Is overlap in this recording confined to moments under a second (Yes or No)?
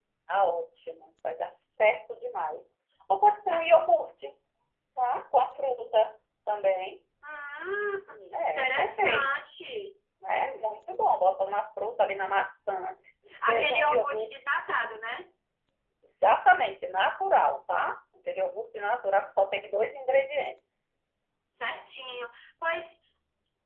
No